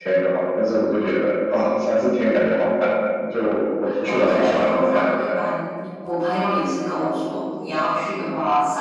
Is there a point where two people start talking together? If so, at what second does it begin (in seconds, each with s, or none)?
3.8 s